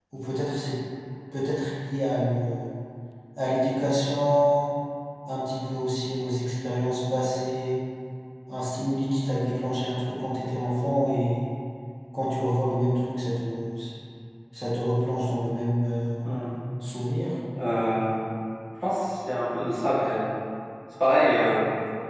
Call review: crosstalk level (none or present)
none